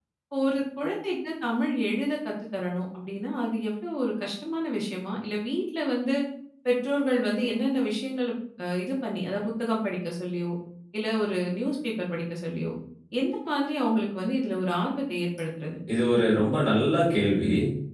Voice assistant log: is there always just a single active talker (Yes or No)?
Yes